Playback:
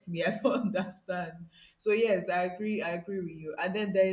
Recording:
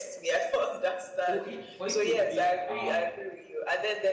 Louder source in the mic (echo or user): echo